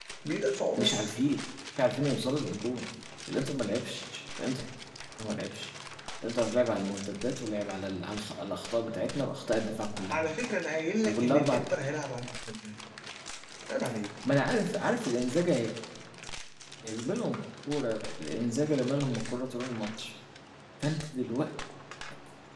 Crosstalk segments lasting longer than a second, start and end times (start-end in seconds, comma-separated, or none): none